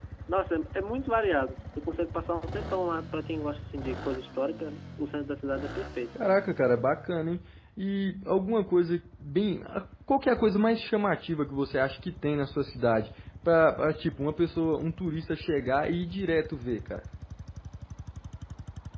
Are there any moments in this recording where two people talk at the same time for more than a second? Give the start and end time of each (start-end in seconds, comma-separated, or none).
none